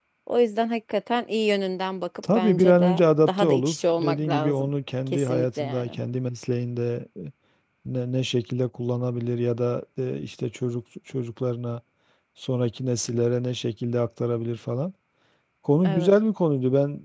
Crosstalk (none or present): present